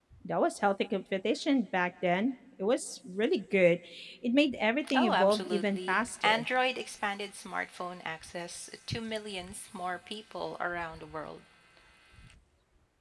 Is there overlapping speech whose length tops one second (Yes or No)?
Yes